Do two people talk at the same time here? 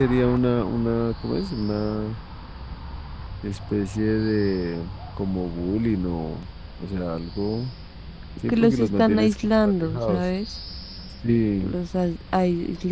Yes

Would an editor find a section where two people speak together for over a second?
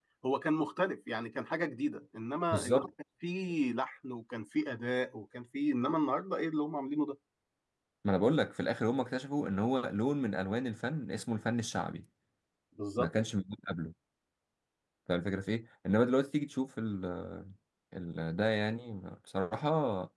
No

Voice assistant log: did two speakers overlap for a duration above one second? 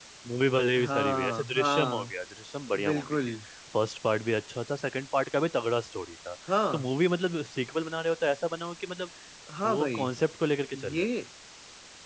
Yes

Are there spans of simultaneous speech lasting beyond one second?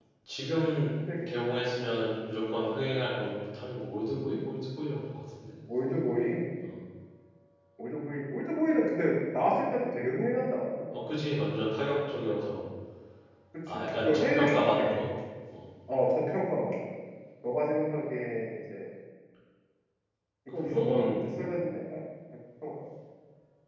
Yes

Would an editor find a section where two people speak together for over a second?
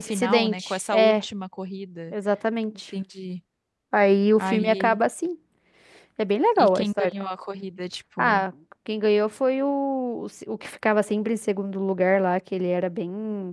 Yes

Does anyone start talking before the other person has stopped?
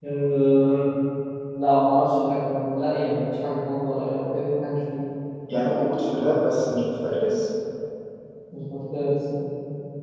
No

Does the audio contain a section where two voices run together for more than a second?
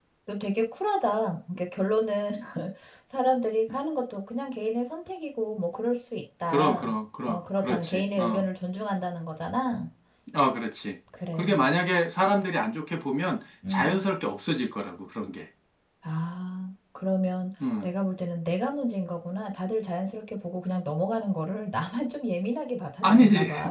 Yes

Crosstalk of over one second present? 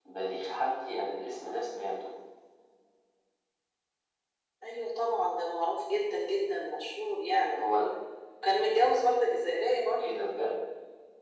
No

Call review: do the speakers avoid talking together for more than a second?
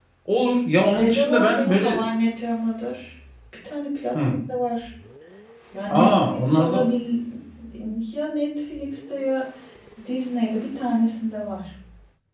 No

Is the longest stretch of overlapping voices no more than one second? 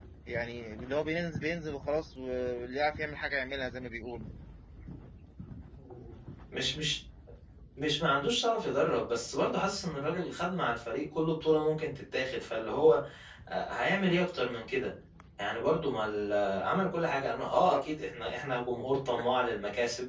Yes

